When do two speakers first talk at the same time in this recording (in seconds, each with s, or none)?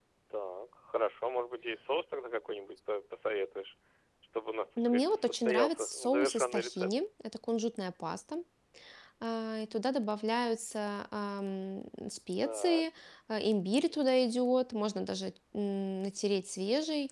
4.8 s